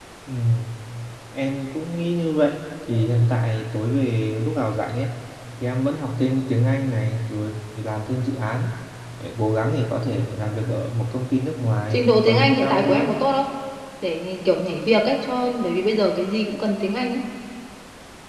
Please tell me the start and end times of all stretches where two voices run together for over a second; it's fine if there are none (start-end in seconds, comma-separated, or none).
11.9-13.1